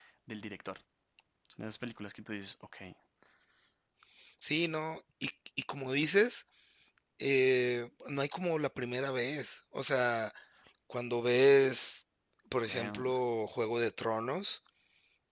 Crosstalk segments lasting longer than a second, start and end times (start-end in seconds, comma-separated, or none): none